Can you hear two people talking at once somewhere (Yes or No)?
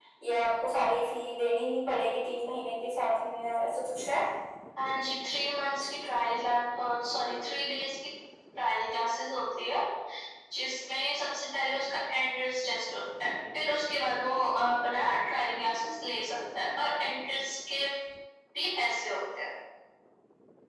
No